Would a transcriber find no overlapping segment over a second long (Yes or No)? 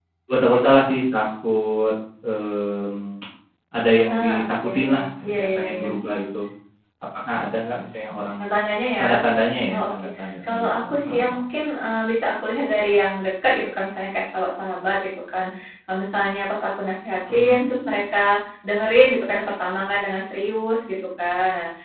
No